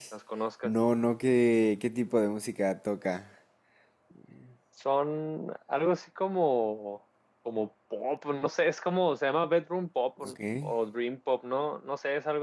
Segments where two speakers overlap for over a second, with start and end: none

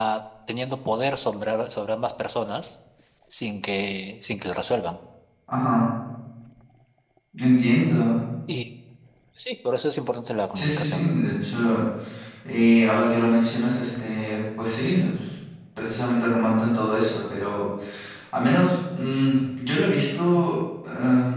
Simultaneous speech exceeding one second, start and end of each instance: none

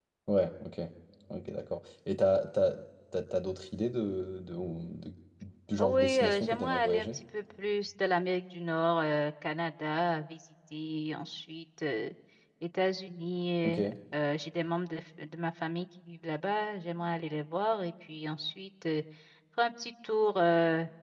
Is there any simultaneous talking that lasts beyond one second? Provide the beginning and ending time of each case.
5.8-7.1

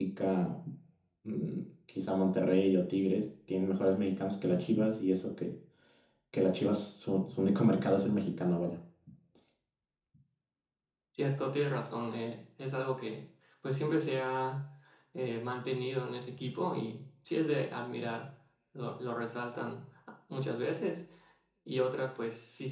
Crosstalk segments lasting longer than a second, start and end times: none

